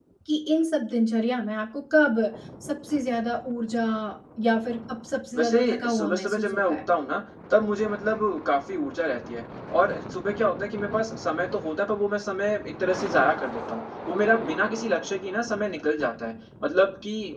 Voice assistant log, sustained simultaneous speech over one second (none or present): present